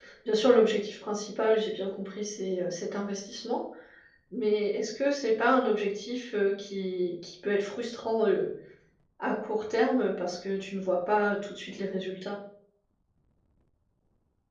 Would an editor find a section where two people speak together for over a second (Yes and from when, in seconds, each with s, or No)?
No